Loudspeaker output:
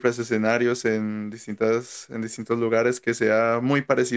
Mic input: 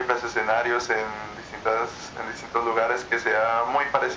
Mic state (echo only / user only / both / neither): echo only